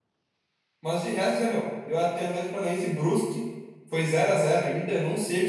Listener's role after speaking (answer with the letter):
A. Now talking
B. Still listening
B